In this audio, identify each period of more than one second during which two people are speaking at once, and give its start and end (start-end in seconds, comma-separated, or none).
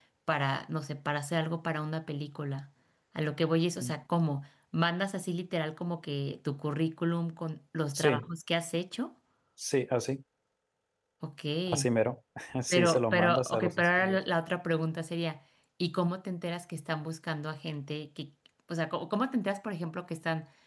12.7-14.2